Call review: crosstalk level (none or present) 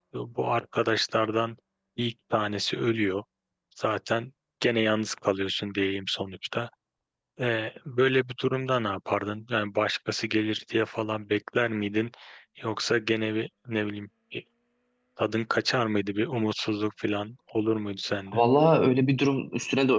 none